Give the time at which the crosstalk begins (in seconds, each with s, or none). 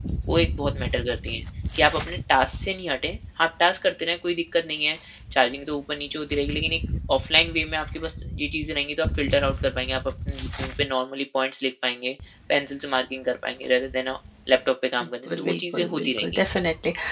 15.0 s